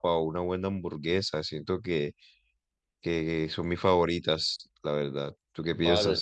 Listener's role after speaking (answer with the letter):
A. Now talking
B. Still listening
A